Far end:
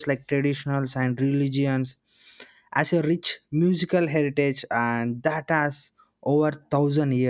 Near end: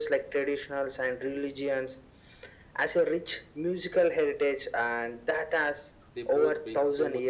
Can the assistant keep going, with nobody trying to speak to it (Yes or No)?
No